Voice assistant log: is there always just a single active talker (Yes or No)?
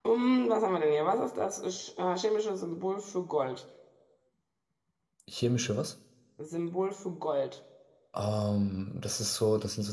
Yes